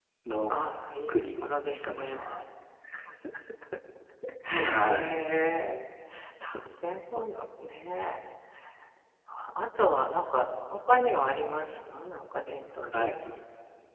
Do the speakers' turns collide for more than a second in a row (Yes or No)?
Yes